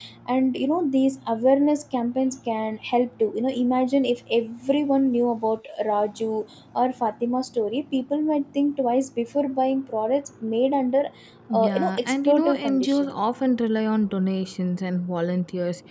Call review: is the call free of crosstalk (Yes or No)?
No